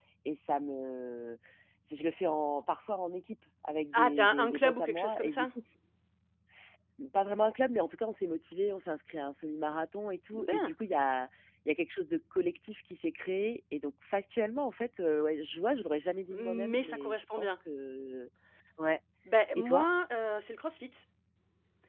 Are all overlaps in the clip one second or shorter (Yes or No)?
No